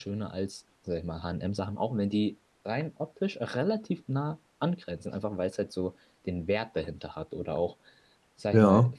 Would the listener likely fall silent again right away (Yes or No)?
Yes